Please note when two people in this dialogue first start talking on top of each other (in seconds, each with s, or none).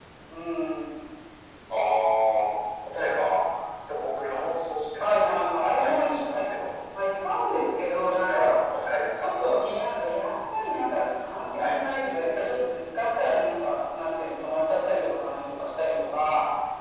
5.0 s